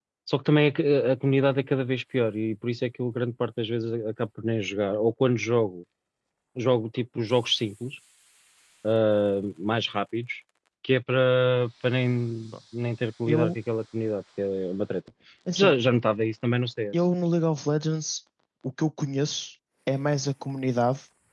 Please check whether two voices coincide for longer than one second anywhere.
No

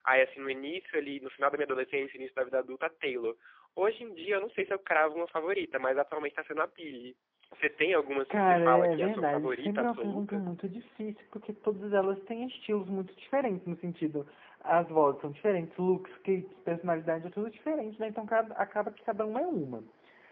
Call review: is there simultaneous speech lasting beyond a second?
Yes, from 8.3 s

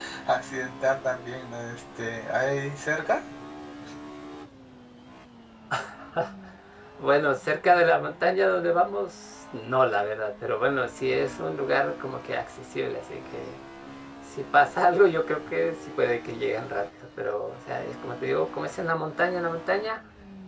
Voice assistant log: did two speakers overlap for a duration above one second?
No

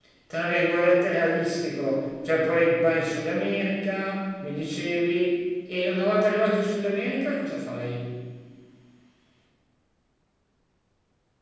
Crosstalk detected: No

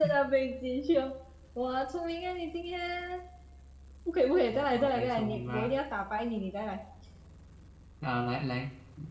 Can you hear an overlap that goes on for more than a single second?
Yes, from 4.5 s

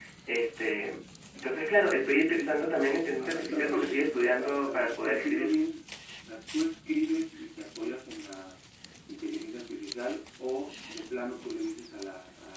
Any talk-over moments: Yes, from 3.2 s

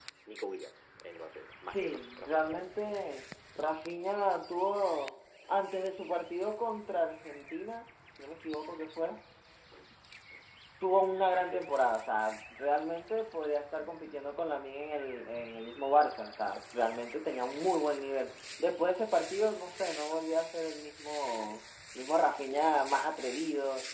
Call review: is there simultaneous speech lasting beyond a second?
Yes, from 1.6 s

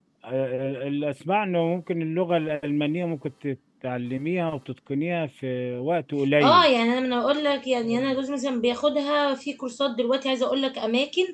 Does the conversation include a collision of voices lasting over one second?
No

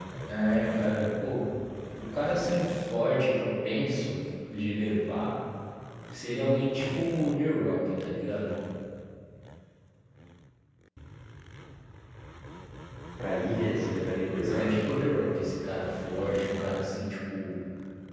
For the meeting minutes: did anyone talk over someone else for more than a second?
No

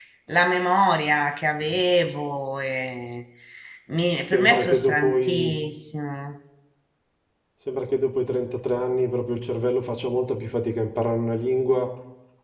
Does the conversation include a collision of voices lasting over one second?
Yes, from 4.2 s

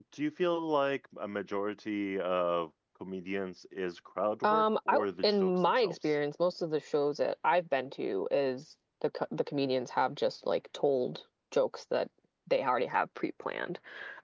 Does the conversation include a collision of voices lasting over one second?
Yes, from 4.4 s

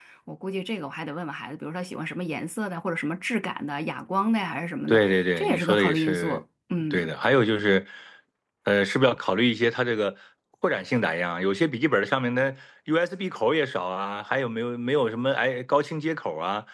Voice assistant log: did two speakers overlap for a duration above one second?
Yes, from 4.9 s

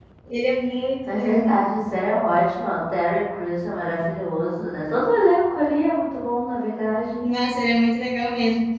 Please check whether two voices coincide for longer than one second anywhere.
No

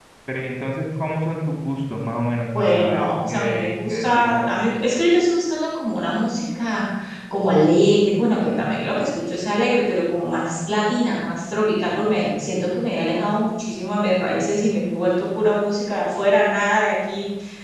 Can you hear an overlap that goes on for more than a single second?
Yes, from 2.6 s

